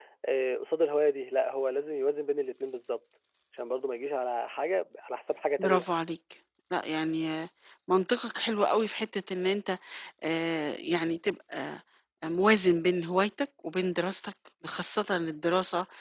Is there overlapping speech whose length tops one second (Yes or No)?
No